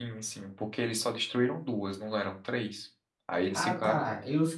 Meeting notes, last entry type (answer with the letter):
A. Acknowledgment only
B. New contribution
B